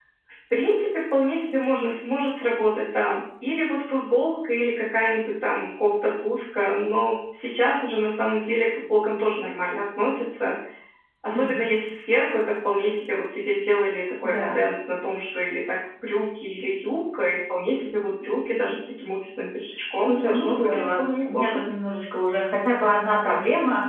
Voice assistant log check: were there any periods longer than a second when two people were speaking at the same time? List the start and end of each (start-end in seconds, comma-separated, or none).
20.1-21.6